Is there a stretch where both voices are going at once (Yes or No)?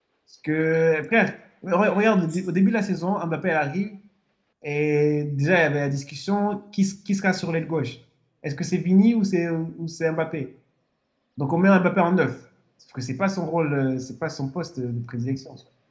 No